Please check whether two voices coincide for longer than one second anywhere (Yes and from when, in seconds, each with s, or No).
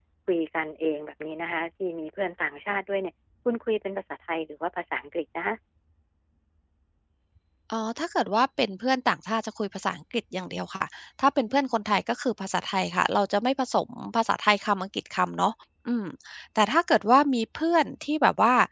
No